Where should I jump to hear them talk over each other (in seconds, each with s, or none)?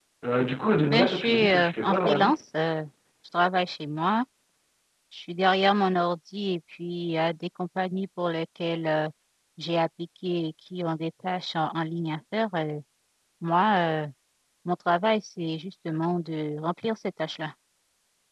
0.9 s